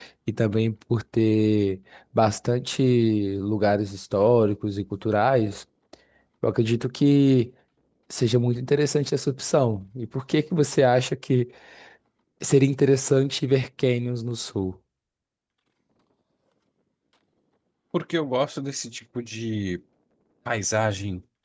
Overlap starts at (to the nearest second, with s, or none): none